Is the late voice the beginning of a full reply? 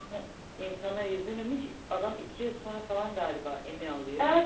Yes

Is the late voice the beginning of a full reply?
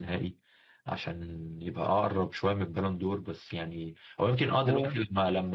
No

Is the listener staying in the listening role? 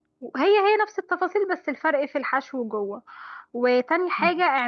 Yes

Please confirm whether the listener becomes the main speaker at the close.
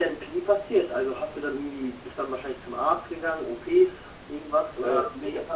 Yes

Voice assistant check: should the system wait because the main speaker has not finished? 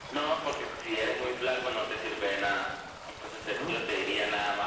Yes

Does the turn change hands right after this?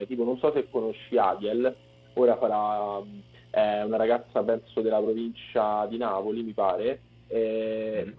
No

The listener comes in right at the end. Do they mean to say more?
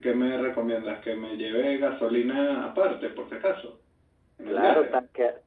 Yes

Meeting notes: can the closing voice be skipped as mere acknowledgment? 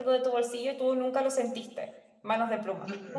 No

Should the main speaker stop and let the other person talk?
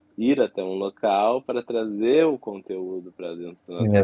Yes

